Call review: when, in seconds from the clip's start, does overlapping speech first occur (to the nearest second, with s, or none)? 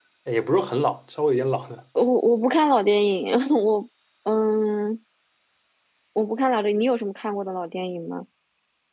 none